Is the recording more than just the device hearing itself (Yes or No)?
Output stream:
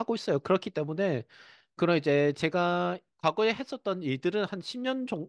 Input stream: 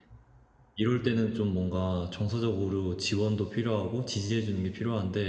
Yes